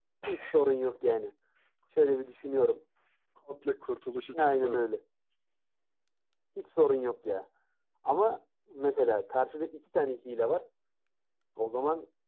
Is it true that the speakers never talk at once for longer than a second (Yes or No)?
Yes